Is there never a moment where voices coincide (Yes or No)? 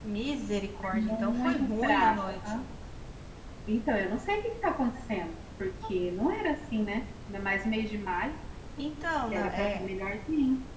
No